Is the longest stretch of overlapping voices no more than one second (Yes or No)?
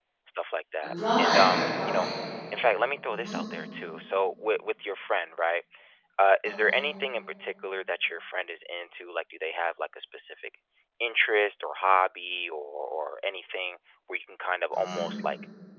No